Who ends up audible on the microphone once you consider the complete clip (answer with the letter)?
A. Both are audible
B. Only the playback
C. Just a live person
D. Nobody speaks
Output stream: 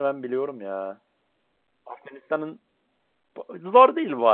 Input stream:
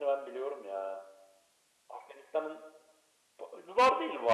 B